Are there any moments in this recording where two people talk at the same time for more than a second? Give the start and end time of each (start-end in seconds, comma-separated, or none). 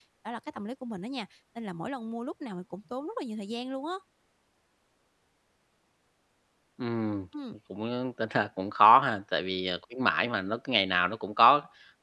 none